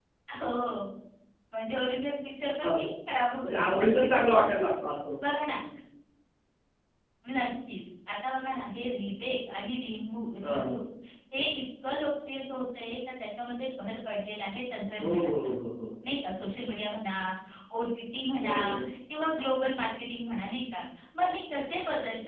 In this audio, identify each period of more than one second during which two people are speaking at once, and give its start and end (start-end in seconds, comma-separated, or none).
3.4-4.7